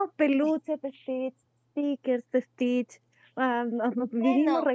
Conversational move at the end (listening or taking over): listening